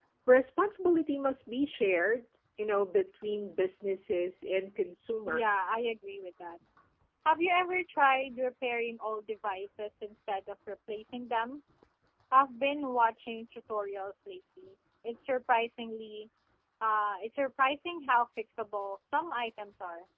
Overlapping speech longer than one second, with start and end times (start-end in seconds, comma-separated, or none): none